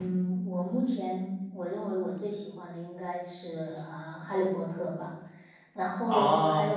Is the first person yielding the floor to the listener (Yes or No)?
No